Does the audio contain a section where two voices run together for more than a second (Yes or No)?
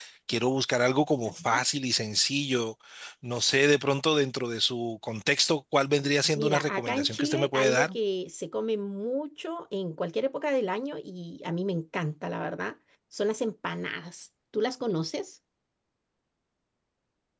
Yes